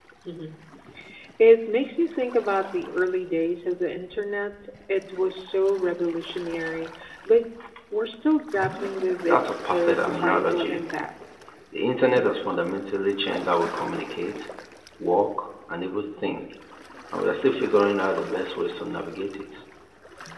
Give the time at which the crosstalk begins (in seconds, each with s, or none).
9.2 s